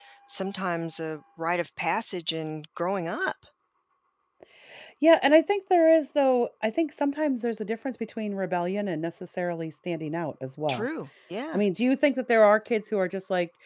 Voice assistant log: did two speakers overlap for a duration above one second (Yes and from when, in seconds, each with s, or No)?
No